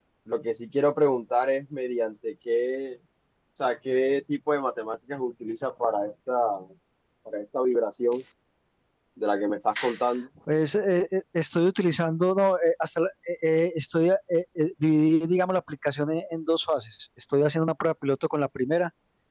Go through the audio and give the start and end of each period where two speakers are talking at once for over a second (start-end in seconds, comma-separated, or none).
none